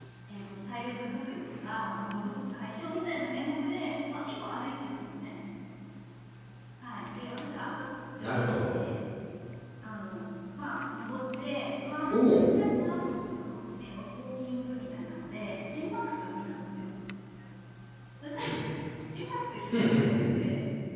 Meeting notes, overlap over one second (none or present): none